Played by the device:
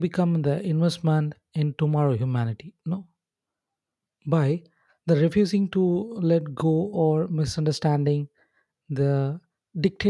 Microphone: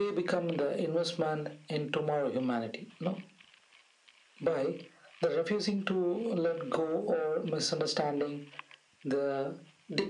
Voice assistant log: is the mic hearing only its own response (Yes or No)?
Yes